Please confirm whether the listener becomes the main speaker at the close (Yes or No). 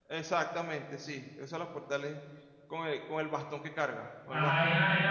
Yes